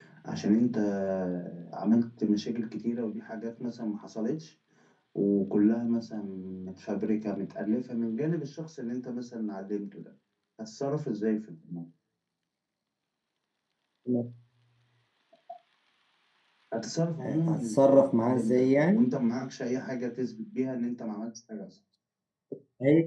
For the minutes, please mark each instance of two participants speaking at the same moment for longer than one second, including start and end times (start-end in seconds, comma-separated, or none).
17.2-19.1